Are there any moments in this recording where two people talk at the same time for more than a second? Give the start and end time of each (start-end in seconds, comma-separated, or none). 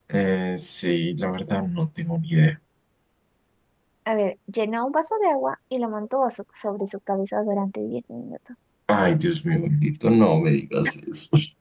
none